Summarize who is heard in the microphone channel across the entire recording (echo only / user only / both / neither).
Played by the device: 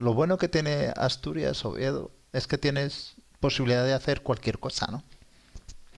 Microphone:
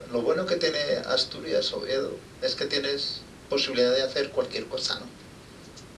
echo only